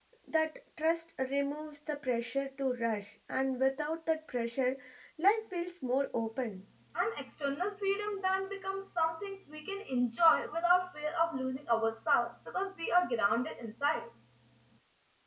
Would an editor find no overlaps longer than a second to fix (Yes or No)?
Yes